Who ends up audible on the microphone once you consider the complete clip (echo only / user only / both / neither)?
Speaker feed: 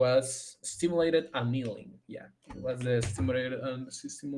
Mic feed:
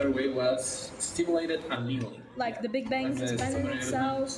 both